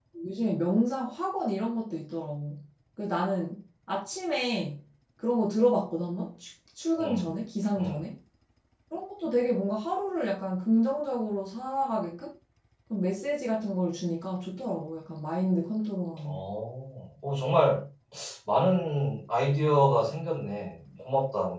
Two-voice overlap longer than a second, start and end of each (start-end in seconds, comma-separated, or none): none